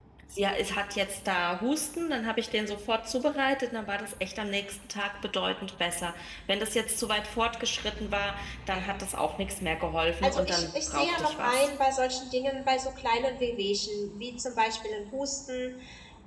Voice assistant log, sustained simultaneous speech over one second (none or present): present